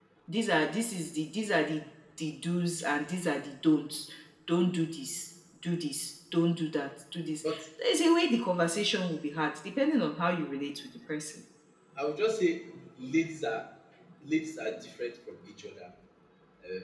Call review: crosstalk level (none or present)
none